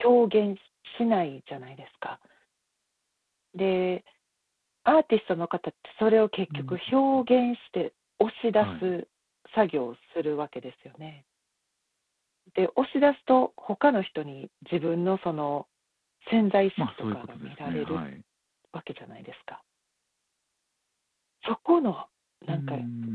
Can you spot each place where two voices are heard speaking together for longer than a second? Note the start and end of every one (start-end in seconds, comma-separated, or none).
16.8-18.0